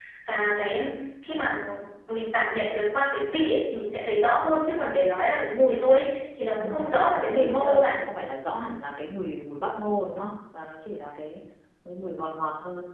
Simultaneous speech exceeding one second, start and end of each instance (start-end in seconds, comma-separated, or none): 6.6-8.0